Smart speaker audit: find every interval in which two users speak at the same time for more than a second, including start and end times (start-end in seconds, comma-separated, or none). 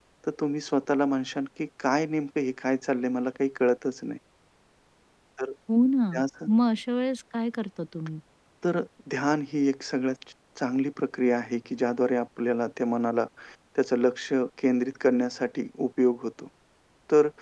none